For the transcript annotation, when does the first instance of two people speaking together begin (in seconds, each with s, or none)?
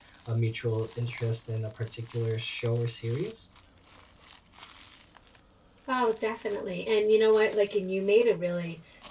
none